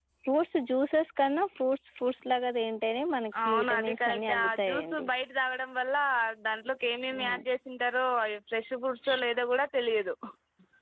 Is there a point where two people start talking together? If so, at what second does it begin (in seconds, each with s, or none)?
3.4 s